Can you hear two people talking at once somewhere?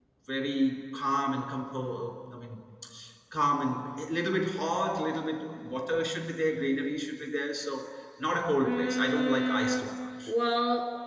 Yes, from 8.6 s

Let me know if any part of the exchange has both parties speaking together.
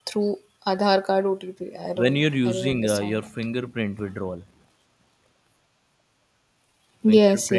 Yes, from 1.9 s

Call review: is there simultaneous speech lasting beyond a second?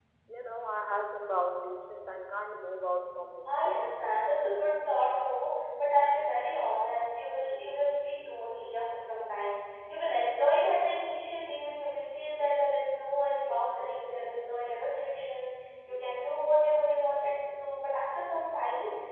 No

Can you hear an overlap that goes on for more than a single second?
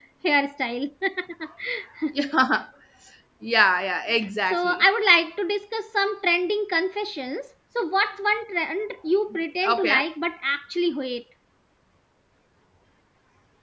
No

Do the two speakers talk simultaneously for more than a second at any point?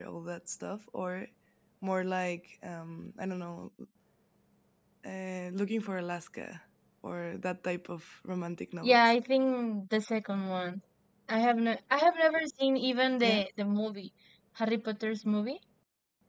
No

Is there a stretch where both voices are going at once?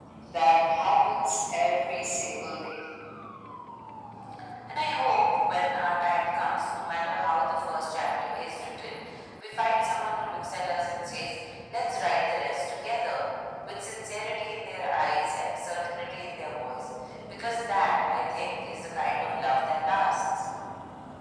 No

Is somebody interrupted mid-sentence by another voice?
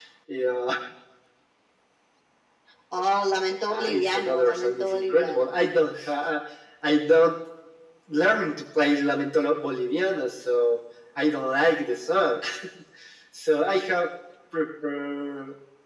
Yes, from 3.7 s

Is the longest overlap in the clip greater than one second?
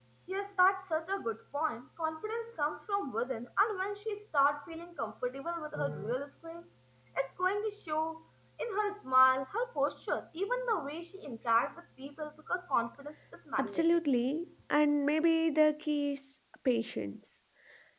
No

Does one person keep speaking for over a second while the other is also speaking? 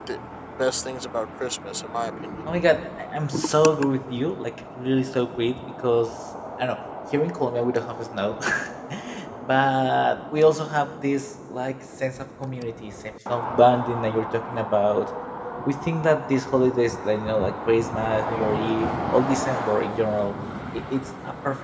No

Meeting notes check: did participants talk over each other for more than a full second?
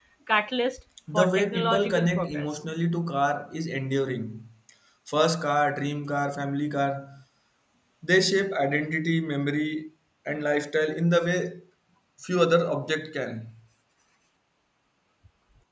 Yes, from 1.1 s

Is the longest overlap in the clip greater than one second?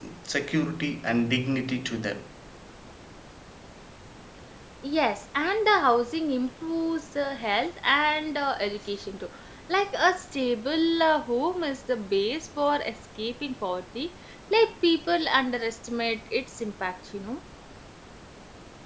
No

